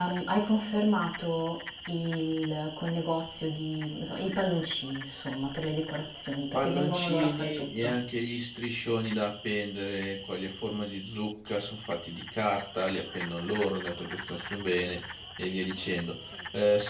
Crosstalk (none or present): present